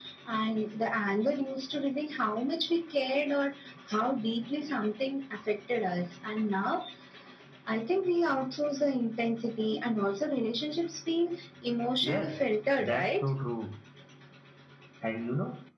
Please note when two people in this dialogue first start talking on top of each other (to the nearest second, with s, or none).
12 s